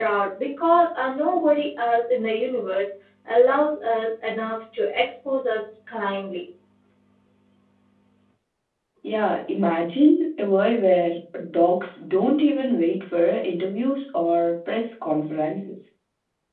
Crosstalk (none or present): none